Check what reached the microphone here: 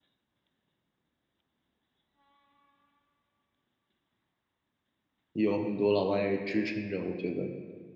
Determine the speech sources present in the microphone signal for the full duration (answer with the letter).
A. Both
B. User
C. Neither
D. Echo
B